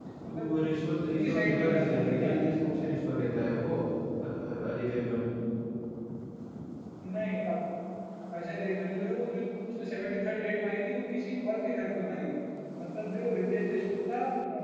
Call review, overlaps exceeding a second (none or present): present